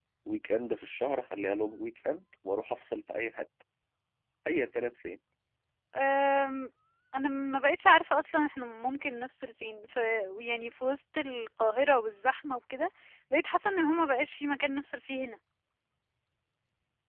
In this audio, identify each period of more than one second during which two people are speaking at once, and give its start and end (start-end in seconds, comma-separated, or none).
none